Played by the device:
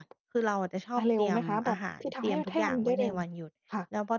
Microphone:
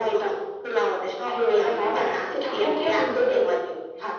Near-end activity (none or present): none